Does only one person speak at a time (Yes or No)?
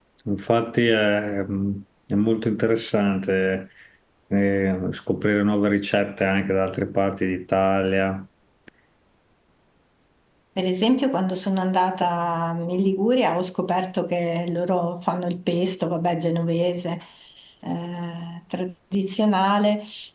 Yes